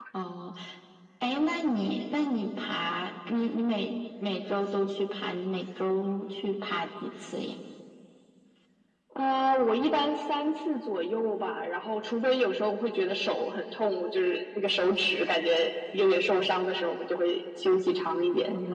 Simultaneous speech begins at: none

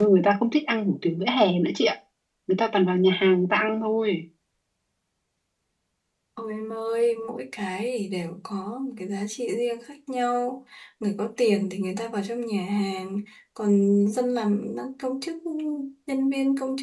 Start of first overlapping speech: none

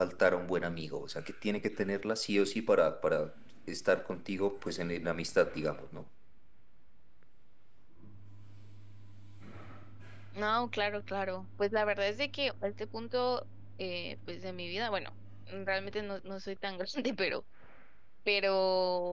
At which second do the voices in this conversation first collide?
none

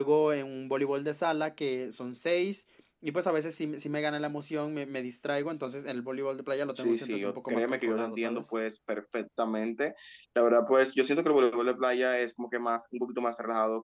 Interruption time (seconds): 6.8 s

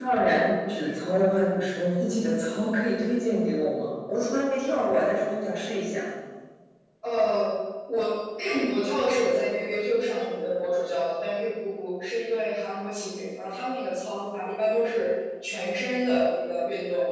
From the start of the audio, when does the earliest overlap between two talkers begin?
none

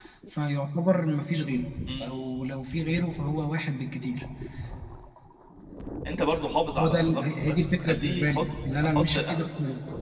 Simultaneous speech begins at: 6.8 s

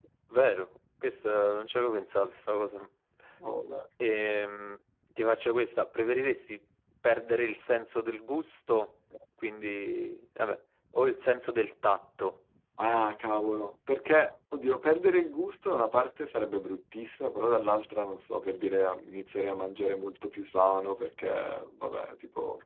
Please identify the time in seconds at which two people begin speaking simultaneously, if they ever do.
none

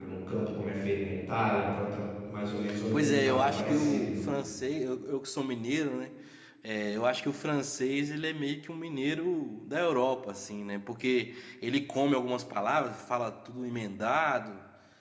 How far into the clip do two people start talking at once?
2.7 s

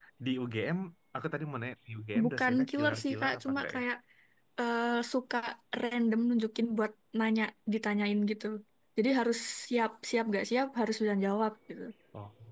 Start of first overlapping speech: 2.1 s

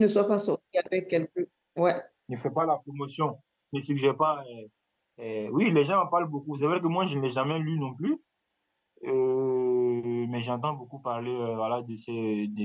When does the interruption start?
none

